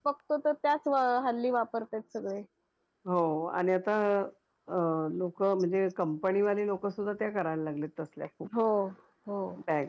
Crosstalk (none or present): none